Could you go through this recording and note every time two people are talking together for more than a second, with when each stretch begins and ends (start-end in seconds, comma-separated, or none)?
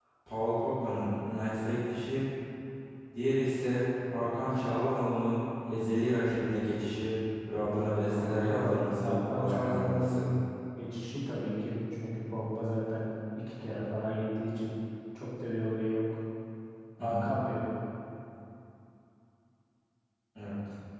8.1-10.2